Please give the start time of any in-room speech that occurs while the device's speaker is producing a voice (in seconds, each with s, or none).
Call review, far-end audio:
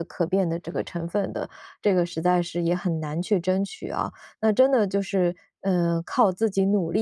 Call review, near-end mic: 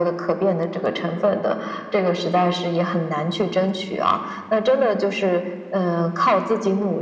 none